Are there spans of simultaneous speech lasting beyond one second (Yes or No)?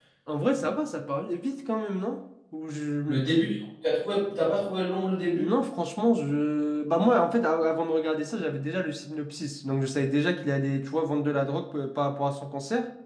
No